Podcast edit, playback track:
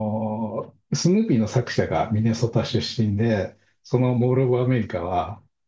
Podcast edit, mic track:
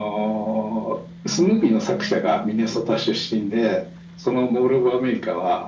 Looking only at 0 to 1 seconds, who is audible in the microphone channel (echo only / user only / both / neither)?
echo only